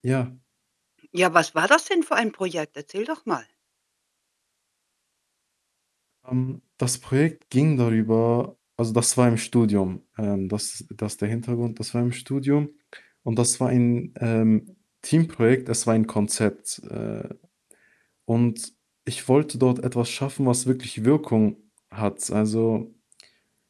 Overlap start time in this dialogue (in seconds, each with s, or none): none